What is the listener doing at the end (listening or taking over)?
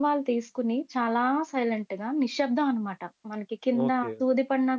taking over